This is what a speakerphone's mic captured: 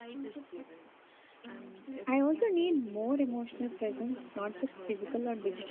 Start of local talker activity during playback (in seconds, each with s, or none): 2.1 s